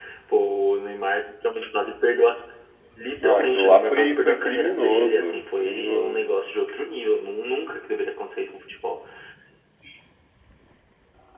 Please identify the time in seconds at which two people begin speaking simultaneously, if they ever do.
3.2 s

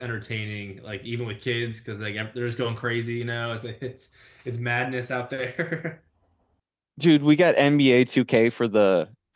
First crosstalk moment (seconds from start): none

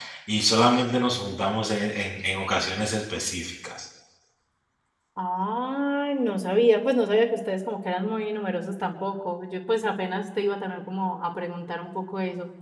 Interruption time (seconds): none

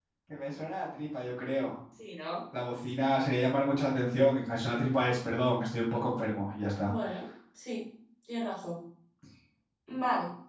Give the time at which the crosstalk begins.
none

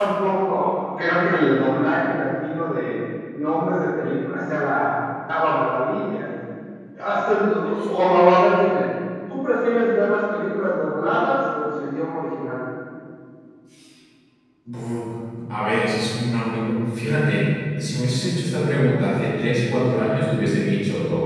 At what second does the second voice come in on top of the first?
none

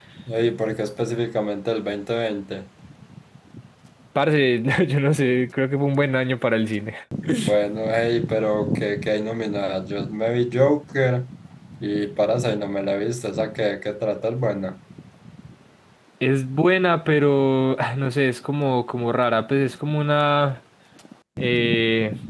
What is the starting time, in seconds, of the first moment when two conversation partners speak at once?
none

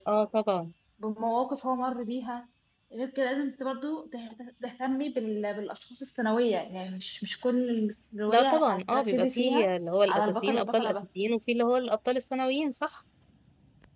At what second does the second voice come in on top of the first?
8.3 s

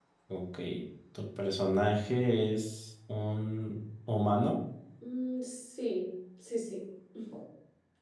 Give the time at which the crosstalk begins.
none

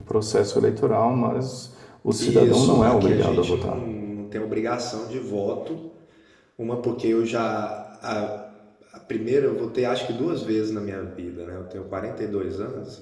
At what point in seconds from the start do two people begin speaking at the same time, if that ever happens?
2.2 s

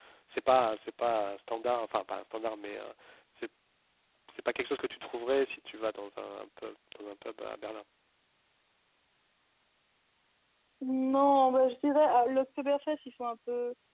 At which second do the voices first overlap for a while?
none

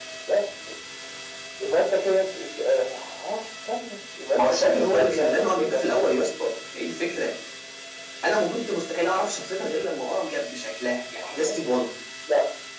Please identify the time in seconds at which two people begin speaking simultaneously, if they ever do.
4.4 s

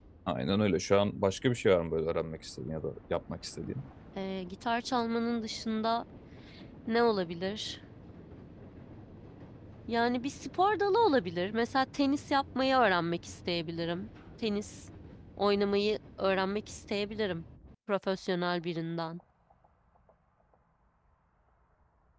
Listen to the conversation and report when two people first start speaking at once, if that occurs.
none

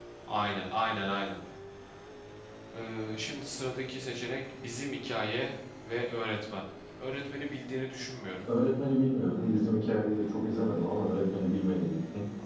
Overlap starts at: none

